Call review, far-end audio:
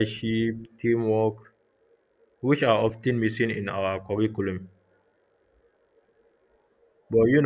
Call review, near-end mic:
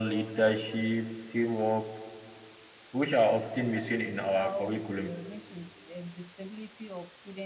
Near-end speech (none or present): present